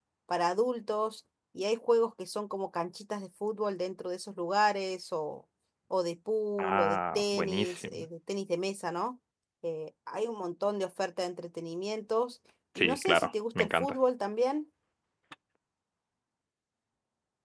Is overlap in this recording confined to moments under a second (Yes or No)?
No